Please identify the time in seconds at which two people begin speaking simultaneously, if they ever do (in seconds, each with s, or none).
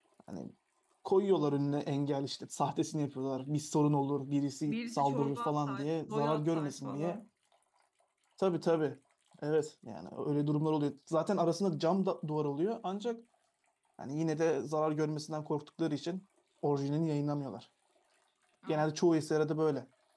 4.7 s